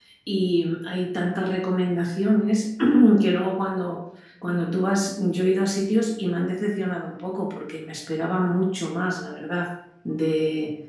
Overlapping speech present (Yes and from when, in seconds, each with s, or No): No